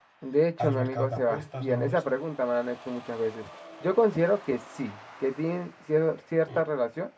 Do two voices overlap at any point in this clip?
Yes, from 0.6 s

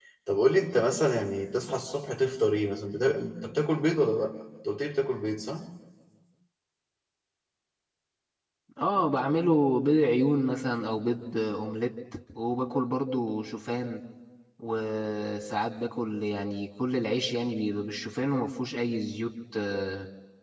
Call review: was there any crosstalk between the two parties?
No

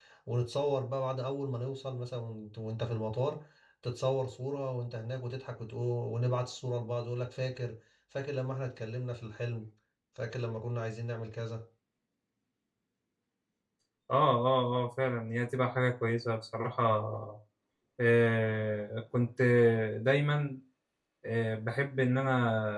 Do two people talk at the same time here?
No

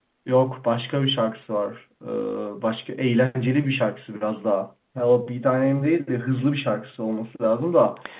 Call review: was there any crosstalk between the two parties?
No

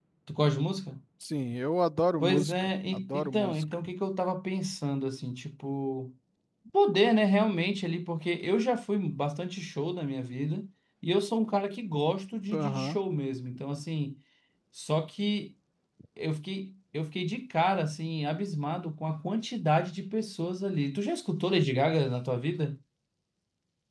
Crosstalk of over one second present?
Yes, from 2.2 s

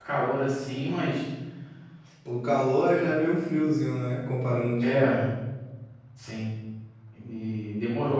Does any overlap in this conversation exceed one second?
No

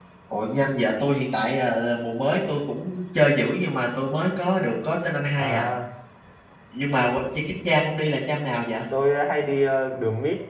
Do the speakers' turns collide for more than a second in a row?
No

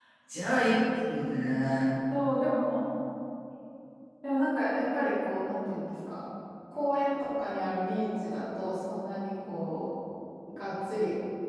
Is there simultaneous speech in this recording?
No

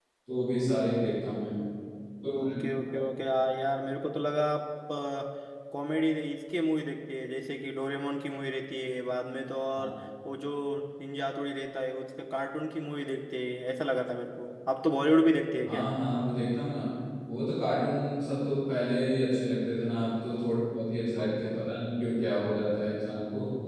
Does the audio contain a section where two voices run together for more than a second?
No

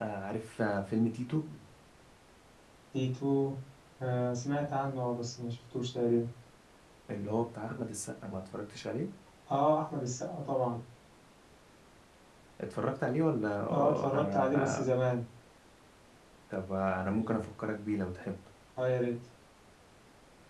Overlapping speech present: Yes, from 13.6 s

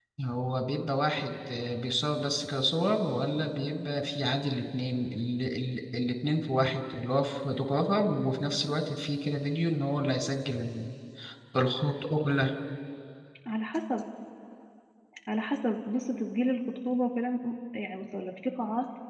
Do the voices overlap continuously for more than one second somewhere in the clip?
No

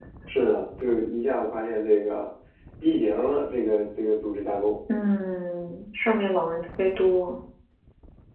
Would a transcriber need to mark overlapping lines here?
No

